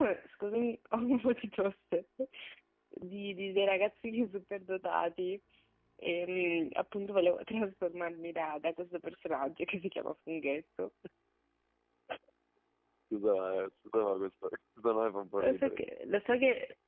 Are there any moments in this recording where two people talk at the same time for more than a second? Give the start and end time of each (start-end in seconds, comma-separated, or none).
none